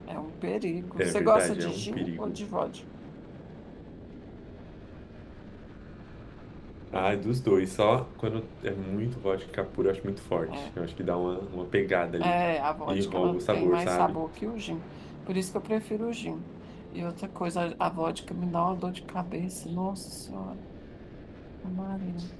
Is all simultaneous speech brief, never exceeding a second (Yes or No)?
No